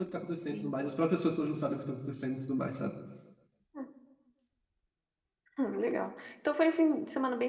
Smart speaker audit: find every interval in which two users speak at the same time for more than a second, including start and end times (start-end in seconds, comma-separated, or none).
none